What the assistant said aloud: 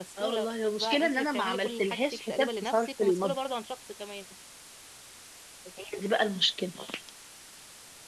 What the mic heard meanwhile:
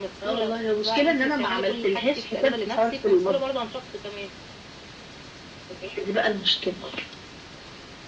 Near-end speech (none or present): none